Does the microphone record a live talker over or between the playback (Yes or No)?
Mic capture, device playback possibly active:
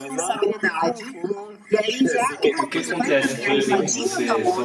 Yes